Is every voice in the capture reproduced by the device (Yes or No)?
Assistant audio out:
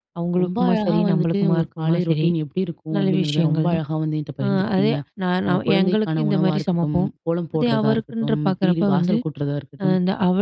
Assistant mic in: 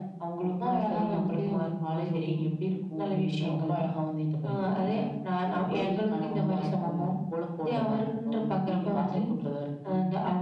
Yes